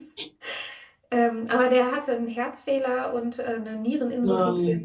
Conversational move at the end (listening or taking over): listening